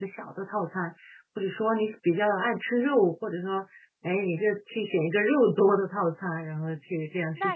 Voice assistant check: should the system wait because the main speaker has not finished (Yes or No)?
No